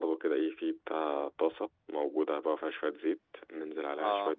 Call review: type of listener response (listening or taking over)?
listening